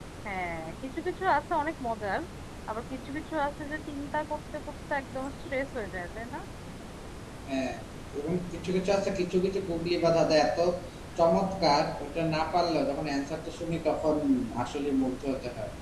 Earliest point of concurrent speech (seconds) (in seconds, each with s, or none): none